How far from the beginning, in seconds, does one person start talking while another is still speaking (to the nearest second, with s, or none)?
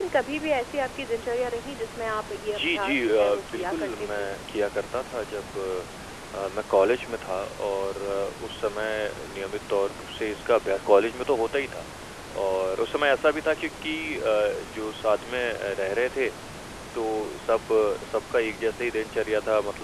2 s